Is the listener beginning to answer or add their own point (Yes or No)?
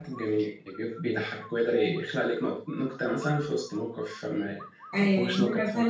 Yes